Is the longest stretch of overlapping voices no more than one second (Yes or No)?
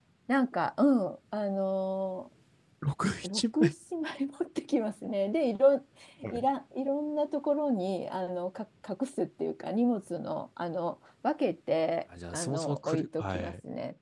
No